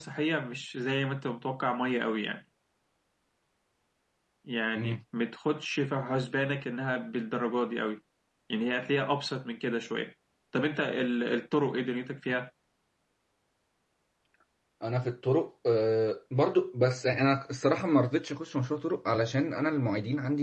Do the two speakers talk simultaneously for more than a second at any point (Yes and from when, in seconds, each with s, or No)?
No